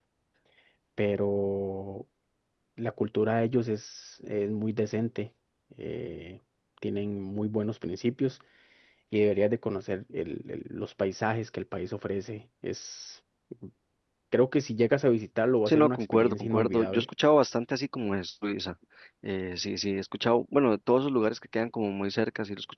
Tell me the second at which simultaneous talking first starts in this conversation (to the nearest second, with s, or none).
16 s